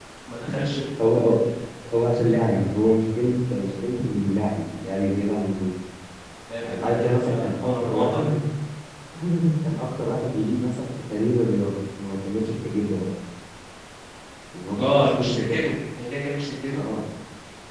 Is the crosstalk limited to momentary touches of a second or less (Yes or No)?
No